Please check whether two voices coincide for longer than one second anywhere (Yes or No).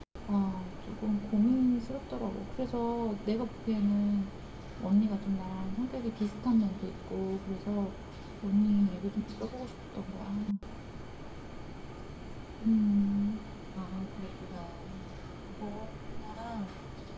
No